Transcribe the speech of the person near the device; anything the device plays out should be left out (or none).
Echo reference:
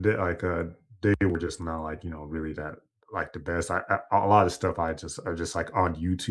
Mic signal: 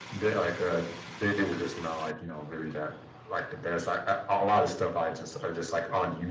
none